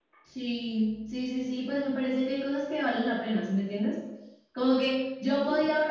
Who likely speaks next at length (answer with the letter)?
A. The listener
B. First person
B